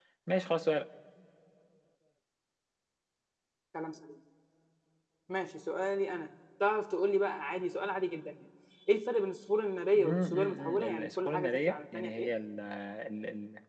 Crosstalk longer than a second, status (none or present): present